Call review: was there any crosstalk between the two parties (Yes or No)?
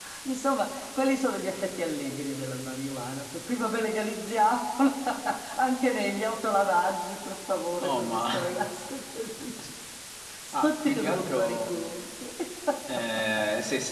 Yes